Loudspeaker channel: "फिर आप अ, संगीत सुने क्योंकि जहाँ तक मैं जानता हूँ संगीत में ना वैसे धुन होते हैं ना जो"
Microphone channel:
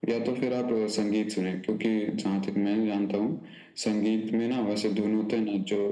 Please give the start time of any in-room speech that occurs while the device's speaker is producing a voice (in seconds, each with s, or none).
none